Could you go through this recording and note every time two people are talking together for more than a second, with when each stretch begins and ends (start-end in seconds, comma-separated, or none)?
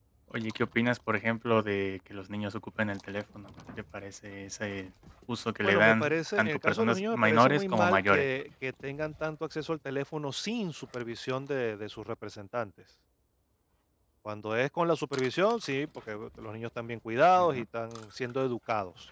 5.6-8.3